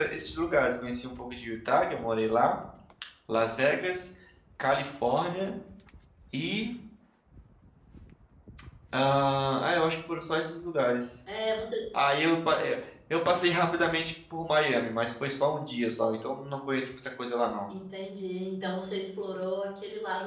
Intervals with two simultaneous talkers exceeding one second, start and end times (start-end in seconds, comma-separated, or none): none